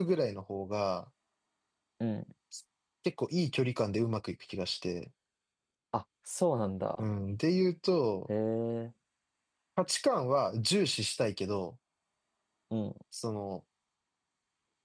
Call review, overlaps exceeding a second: none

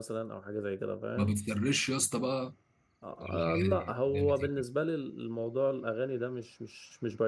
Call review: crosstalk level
present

